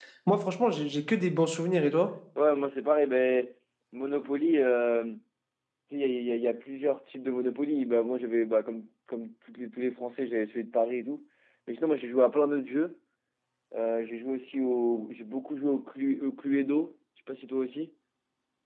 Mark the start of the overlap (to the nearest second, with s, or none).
none